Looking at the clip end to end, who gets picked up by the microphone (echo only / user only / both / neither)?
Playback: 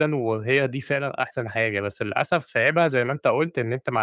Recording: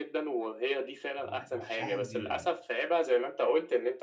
both